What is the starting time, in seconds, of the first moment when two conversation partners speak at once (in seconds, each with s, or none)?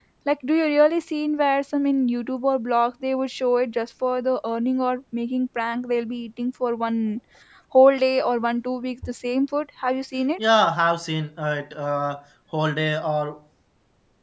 none